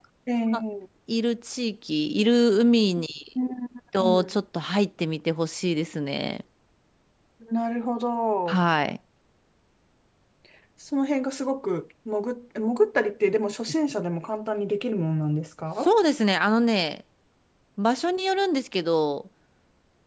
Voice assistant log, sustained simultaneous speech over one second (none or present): none